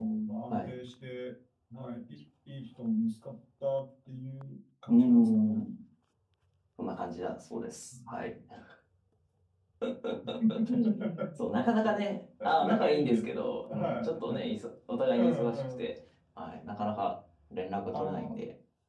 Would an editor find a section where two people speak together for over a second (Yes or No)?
Yes